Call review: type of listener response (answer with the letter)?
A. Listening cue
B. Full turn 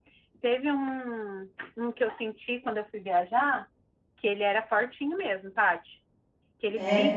A